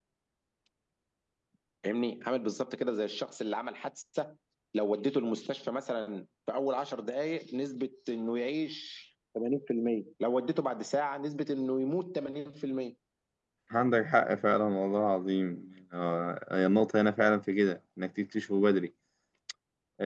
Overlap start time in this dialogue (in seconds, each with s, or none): none